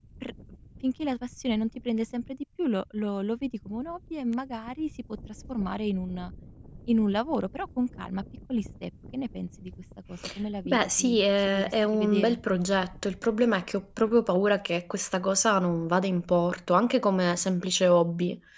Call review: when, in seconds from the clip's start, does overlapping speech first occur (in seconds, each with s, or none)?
10.6 s